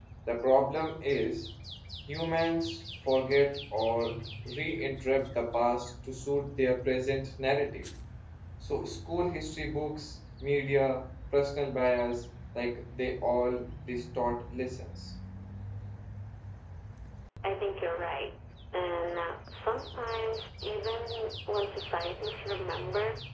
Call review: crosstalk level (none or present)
none